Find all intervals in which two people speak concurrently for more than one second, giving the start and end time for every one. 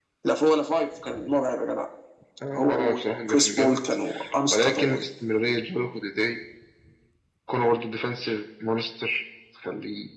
2.6-3.8

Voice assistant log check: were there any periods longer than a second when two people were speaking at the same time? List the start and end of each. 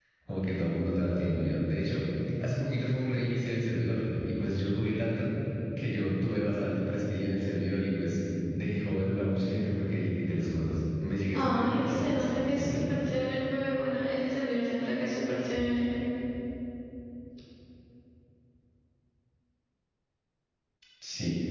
11.4-12.8

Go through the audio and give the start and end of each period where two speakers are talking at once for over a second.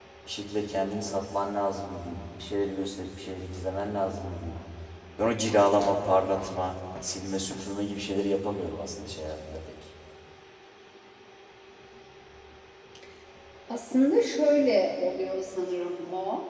none

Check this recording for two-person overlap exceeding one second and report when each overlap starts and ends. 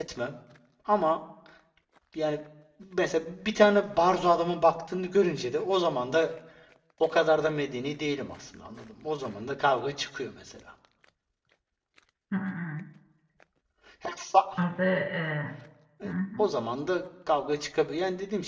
none

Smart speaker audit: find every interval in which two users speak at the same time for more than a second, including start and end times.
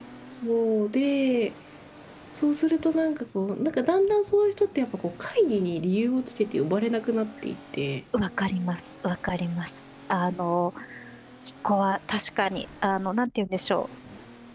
none

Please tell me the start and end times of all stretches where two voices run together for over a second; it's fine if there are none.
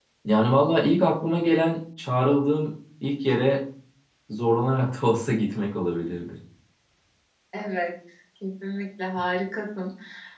none

